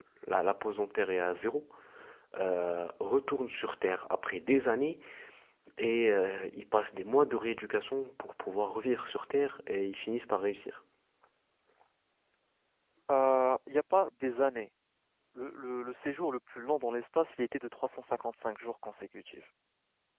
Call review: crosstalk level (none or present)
none